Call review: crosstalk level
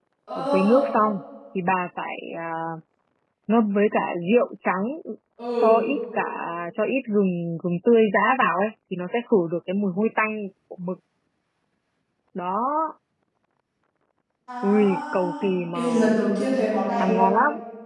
present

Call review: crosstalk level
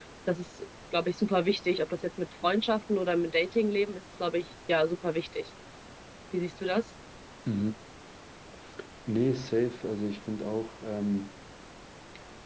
none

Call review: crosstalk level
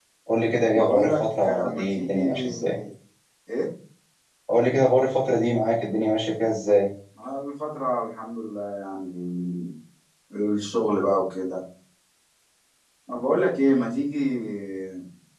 present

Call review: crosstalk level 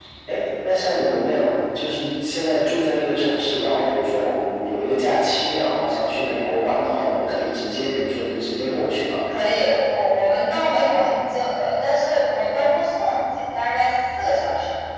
none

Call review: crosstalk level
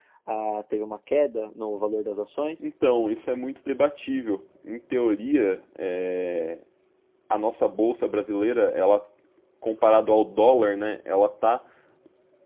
none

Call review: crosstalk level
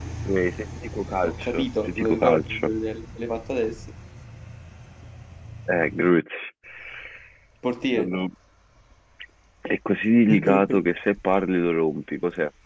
present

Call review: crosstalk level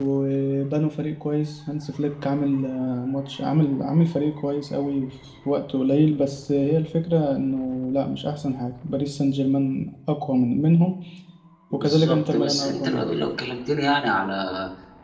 present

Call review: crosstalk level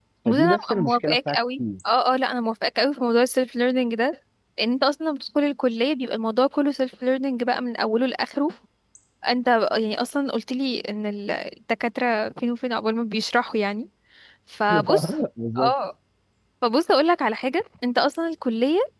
present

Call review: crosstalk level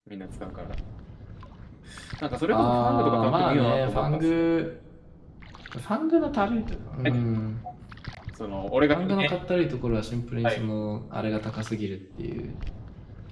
present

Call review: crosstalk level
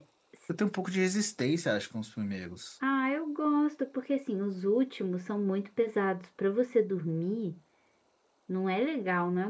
none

